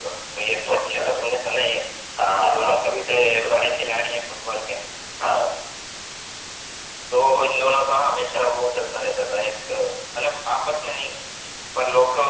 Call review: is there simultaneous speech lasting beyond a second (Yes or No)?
Yes